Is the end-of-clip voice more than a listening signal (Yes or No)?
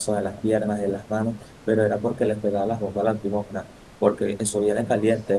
No